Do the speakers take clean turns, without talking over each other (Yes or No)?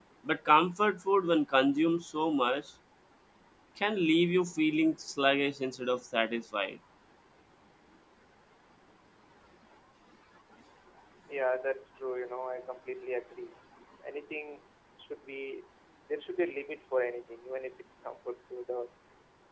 Yes